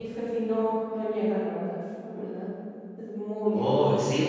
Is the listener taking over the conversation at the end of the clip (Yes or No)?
Yes